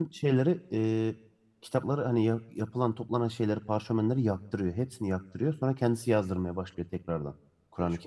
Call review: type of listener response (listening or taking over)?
taking over